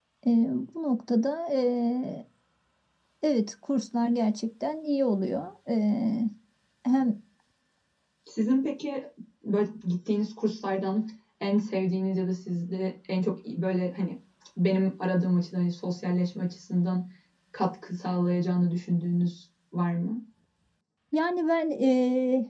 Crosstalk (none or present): none